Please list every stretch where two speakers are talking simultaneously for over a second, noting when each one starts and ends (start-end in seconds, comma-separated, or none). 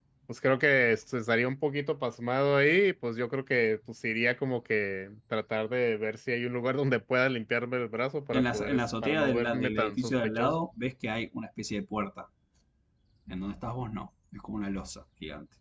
8.3-10.7